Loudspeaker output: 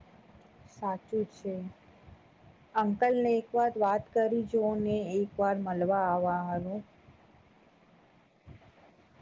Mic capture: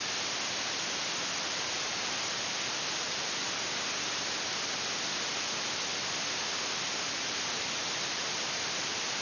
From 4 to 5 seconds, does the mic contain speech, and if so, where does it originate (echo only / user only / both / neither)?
neither